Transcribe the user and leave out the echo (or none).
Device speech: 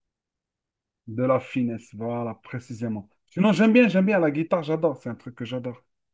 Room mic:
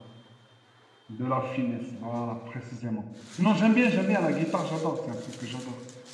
none